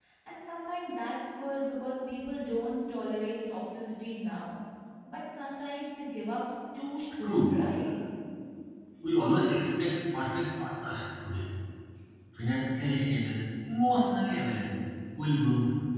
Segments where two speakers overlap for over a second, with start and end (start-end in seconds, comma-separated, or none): none